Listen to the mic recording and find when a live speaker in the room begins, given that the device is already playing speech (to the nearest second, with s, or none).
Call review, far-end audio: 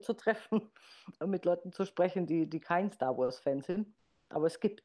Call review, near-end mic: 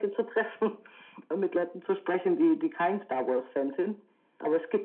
none